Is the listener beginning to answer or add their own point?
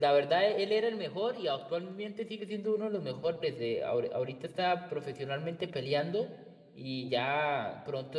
No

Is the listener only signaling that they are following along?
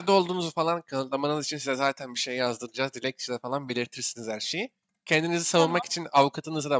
Yes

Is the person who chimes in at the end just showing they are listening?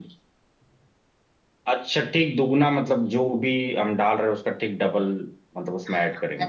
No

